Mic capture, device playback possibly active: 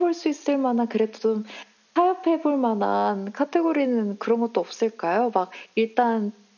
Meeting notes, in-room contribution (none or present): none